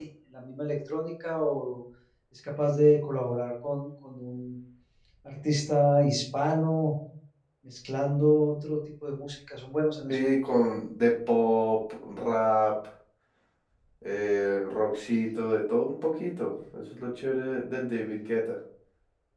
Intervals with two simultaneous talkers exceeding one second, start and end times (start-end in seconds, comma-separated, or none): none